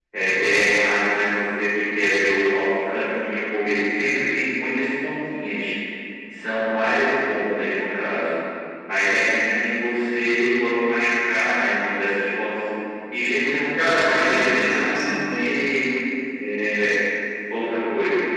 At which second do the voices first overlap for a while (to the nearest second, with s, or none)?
14 s